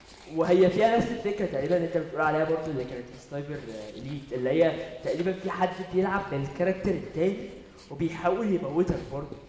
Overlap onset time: none

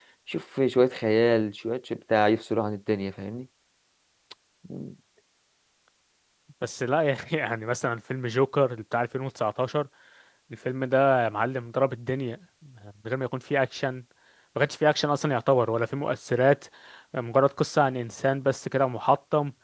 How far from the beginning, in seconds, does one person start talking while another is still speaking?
none

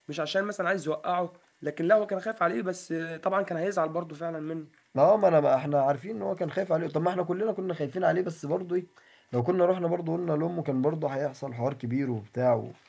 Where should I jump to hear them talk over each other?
none

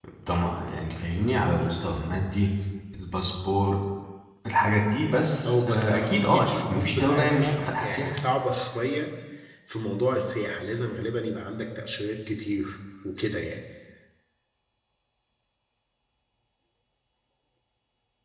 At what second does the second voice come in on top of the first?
5 s

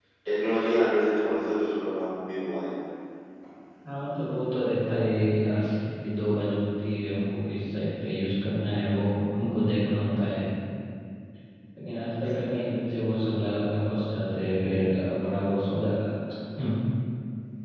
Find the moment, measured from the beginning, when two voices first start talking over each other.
none

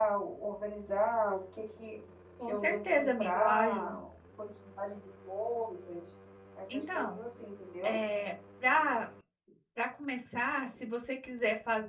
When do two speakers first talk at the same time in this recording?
2 s

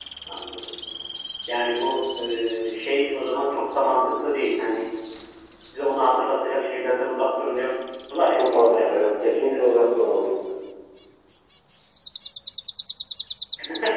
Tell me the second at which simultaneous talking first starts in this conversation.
8 s

